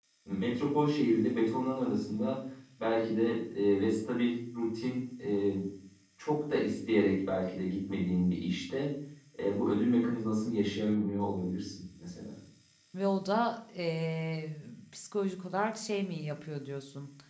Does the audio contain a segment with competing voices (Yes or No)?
No